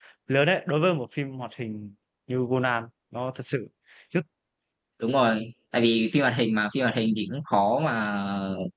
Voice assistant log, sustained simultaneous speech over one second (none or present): none